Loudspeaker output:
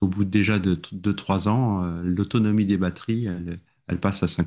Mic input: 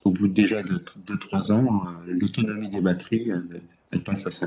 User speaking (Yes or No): No